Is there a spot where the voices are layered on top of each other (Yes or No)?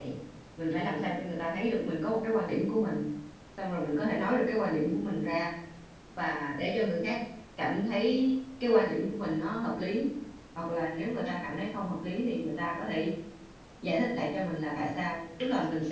No